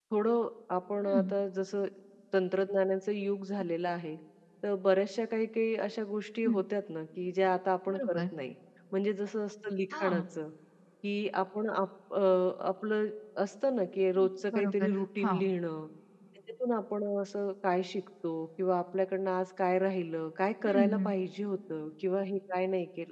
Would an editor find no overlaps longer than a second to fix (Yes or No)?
No